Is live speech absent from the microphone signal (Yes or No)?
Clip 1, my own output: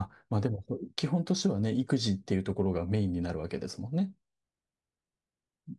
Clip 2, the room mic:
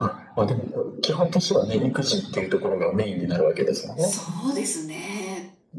No